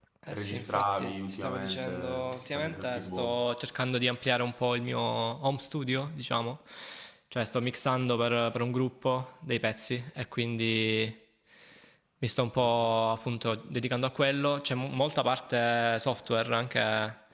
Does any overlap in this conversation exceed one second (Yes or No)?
Yes